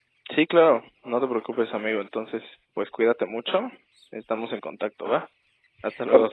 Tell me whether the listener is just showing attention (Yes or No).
No